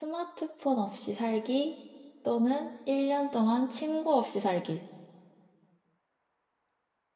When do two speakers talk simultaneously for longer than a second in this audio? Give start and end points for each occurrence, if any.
none

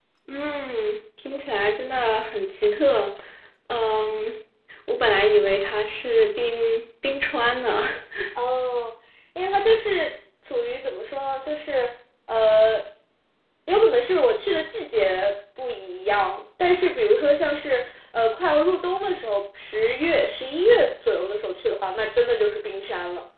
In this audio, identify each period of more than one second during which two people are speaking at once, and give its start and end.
none

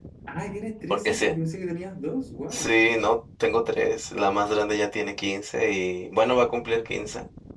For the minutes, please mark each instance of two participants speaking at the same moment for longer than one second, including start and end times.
none

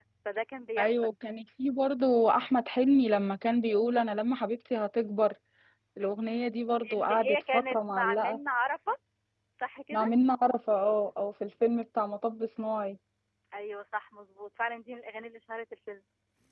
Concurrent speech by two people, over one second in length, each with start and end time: 7.0-8.4

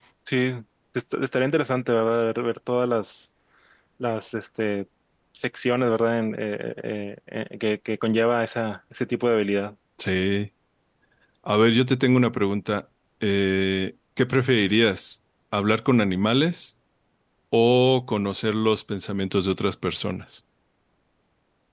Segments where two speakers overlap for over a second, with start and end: none

